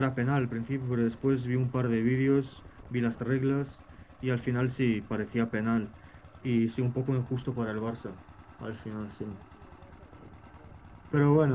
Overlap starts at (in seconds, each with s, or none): none